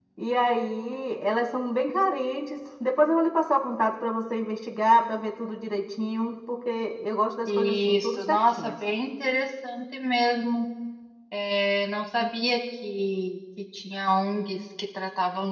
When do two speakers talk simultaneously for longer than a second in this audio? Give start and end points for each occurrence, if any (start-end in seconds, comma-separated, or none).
7.5-8.7